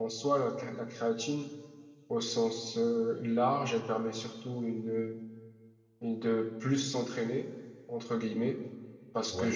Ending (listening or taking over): listening